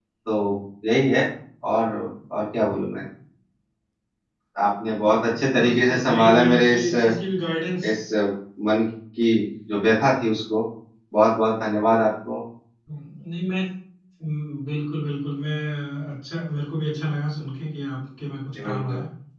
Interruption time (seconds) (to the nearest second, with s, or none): 6 s